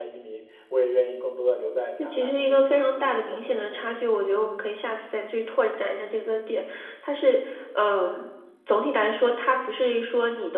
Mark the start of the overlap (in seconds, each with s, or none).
2.0 s